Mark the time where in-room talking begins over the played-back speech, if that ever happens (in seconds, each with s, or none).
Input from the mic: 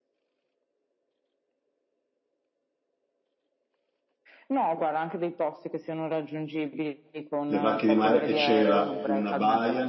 7.5 s